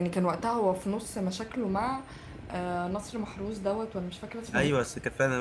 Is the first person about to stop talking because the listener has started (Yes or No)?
Yes